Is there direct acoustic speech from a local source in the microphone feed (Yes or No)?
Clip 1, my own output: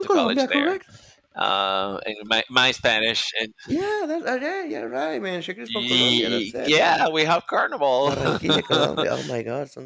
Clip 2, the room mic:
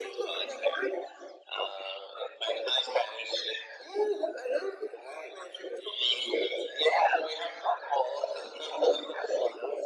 No